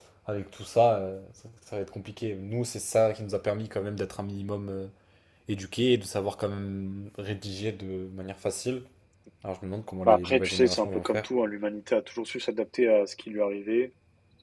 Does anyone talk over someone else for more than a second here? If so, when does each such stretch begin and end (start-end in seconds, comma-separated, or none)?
10.1-11.3